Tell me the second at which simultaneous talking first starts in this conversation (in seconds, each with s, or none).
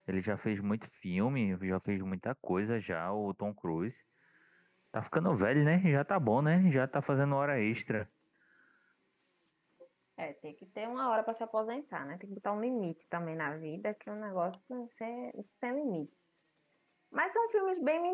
none